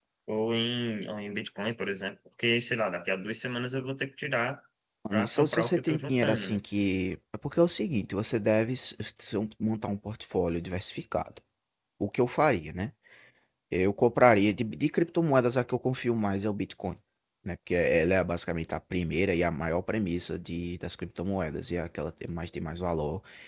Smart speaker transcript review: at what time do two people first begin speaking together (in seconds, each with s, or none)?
5.1 s